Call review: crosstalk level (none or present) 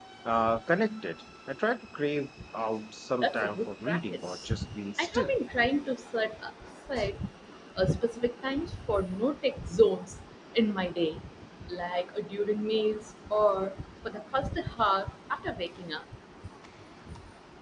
present